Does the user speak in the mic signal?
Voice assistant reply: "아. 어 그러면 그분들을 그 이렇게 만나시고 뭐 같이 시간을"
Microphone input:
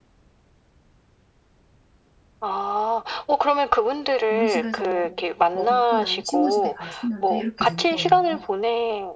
Yes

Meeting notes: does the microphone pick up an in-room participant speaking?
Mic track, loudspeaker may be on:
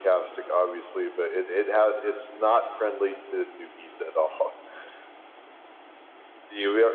No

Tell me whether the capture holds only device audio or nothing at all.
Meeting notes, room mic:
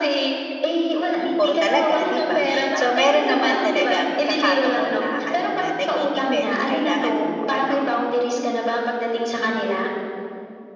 No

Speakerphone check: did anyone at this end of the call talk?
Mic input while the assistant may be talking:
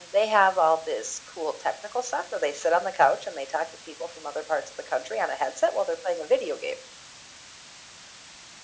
No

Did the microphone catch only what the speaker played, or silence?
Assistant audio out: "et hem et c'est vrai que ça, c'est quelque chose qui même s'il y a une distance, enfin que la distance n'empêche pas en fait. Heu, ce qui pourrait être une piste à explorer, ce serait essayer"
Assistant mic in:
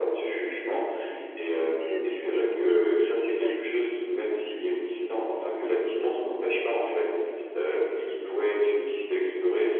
No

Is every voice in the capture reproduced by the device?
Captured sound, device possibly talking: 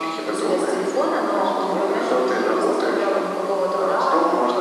Yes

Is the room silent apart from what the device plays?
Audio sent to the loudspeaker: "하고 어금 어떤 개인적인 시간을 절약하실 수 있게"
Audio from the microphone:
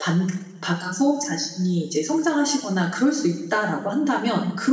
No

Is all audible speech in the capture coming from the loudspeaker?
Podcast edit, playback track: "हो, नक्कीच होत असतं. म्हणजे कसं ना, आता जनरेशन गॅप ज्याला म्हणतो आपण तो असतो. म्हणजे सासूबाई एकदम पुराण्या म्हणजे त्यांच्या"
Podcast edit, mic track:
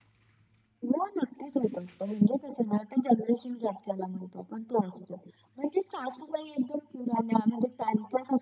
Yes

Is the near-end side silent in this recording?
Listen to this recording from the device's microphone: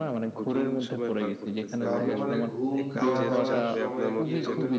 No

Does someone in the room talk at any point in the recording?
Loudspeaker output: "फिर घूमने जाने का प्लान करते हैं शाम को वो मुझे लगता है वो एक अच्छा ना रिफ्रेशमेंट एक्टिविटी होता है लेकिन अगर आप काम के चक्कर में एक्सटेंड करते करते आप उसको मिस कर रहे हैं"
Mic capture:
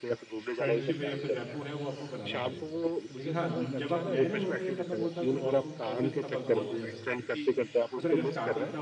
Yes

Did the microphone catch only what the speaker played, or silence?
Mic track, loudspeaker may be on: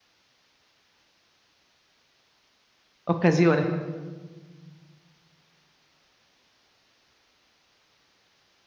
No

